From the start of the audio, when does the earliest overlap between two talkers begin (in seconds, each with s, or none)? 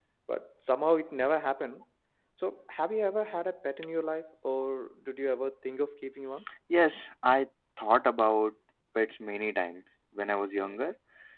none